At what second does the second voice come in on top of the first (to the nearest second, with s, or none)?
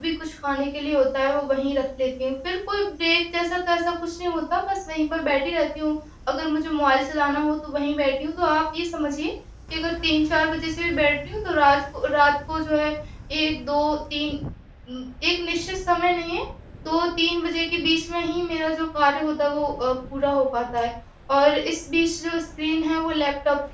none